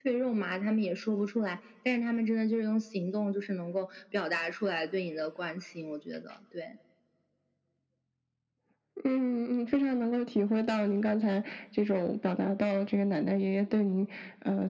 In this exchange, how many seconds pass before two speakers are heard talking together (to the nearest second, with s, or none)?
none